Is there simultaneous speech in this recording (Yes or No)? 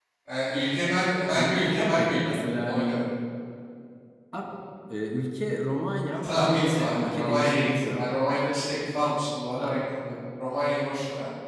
Yes